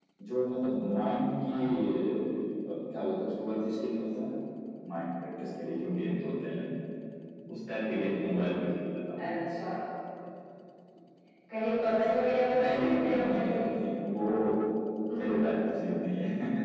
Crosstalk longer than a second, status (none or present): present